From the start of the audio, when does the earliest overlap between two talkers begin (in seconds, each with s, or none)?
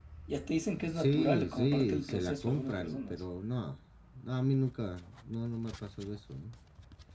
0.8 s